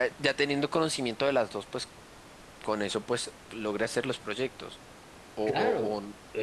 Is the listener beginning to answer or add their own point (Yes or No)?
Yes